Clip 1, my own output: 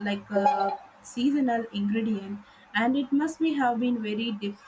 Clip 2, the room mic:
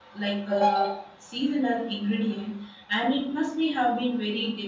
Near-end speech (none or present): none